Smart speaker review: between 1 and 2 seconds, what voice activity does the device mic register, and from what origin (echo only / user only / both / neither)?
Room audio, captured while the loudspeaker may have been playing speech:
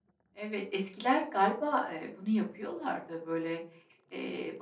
user only